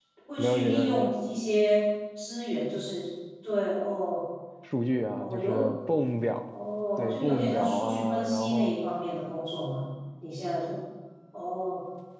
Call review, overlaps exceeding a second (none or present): present